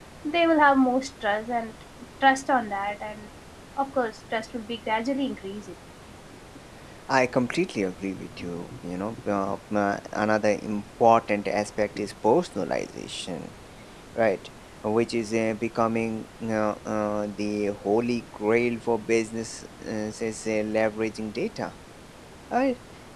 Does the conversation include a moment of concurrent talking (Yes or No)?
No